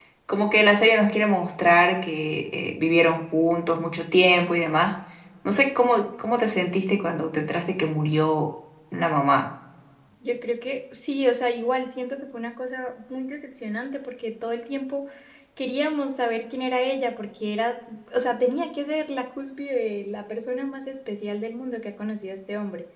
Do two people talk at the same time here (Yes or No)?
No